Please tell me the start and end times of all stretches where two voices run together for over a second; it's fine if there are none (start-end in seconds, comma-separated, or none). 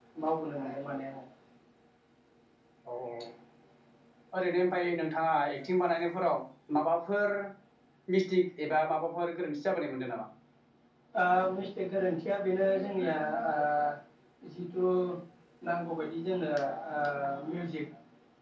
none